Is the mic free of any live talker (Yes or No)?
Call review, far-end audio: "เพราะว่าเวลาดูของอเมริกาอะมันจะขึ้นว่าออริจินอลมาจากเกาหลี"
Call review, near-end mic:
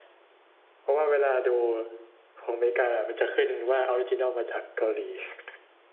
Yes